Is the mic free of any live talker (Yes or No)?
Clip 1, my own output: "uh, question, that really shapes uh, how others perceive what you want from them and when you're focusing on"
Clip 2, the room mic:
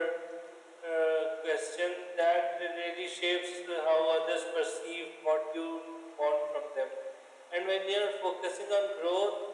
Yes